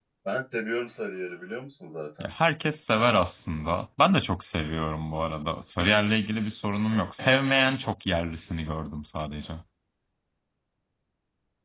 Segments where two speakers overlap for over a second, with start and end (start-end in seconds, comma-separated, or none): none